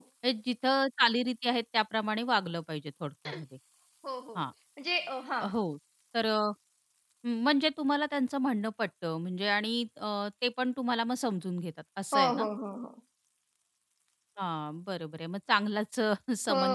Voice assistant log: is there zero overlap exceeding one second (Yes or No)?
Yes